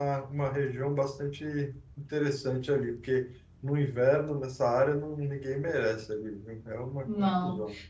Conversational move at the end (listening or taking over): taking over